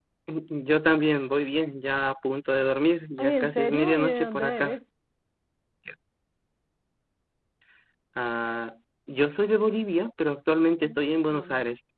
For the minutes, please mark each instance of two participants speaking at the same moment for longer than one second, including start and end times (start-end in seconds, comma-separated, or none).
3.2-4.8